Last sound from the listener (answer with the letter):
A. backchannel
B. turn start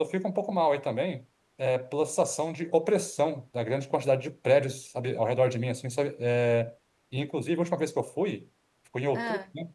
A